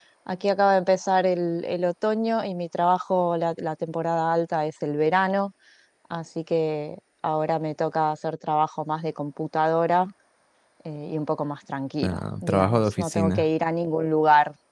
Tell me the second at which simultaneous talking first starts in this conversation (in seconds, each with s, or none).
12.0 s